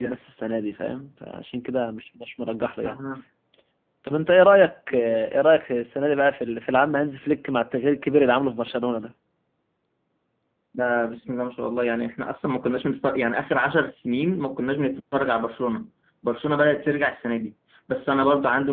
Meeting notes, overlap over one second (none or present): none